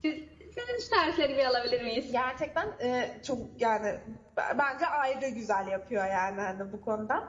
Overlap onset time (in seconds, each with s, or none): none